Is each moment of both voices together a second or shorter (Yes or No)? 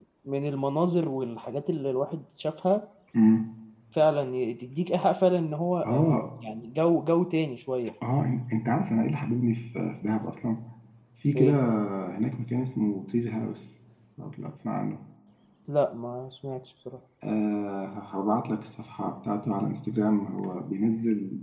Yes